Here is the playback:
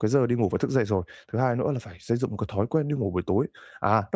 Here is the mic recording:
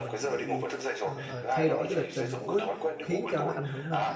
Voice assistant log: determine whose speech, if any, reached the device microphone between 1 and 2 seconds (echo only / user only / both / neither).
both